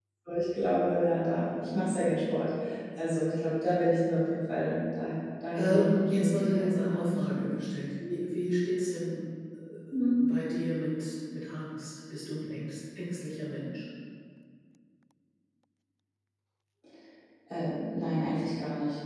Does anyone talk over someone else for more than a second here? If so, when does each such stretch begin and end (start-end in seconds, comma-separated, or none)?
5.6-7.2